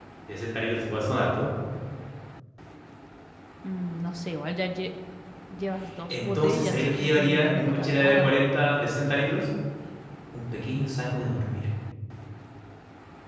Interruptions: present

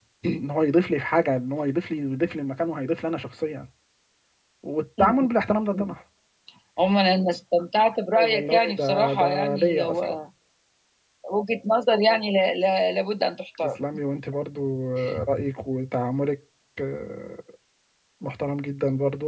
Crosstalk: present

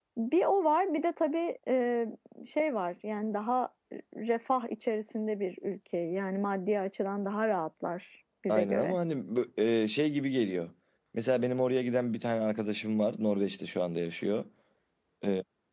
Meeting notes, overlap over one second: none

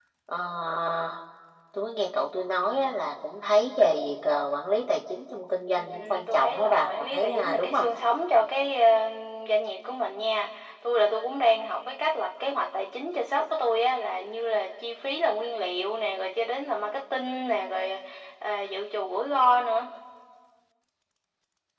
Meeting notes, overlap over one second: present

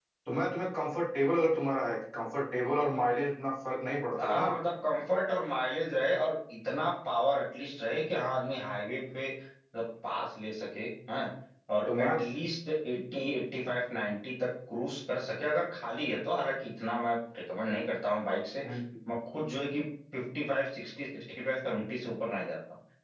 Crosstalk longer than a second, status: none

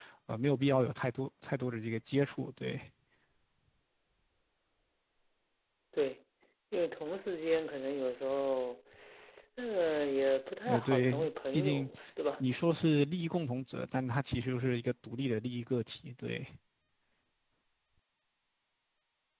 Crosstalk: present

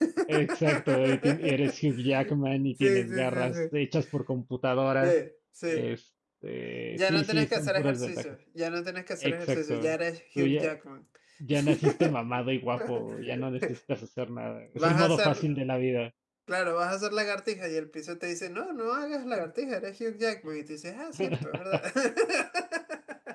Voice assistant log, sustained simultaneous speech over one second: present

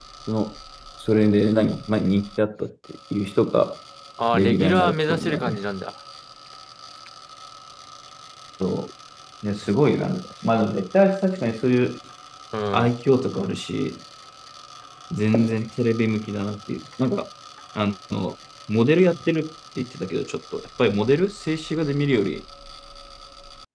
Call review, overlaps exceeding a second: present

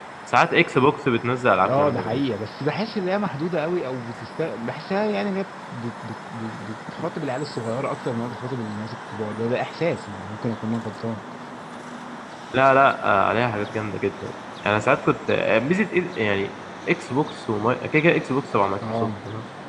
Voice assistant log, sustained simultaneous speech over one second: none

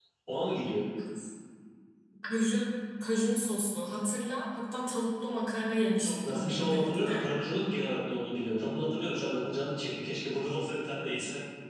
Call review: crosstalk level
present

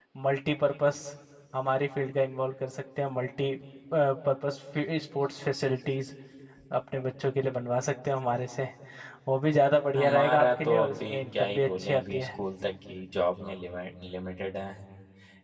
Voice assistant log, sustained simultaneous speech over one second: present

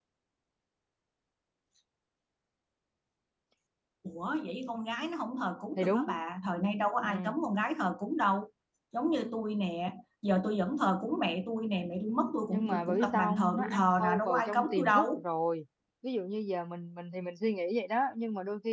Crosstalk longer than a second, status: present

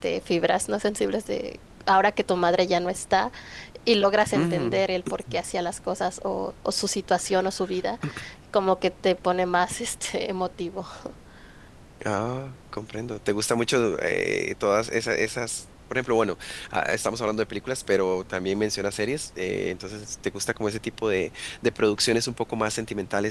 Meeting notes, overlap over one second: none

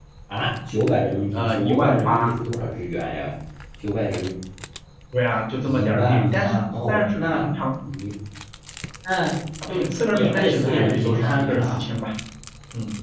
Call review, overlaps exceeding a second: present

